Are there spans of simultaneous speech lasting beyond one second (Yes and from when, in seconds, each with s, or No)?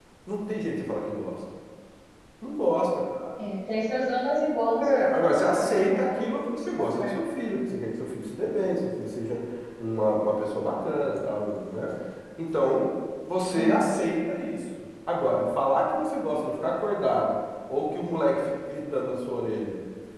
Yes, from 4.8 s